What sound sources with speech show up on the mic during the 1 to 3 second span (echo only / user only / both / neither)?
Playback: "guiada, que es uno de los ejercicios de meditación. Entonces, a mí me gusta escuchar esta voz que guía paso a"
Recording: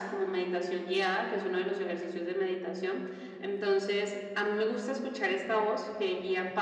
echo only